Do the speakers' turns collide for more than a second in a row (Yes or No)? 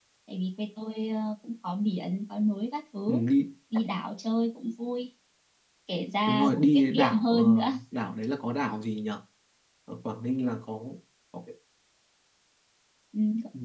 Yes